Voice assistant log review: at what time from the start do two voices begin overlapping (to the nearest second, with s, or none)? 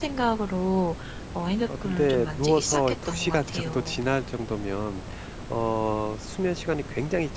2 s